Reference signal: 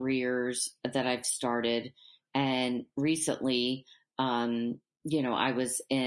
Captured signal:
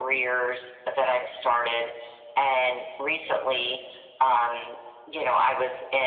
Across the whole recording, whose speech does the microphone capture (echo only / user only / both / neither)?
echo only